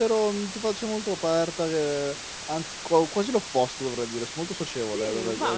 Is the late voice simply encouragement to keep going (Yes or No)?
No